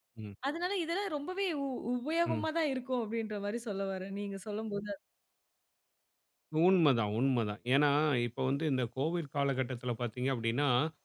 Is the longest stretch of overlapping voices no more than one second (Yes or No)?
Yes